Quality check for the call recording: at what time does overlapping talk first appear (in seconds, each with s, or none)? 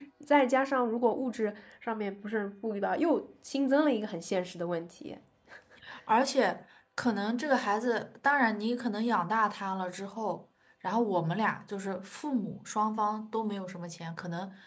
none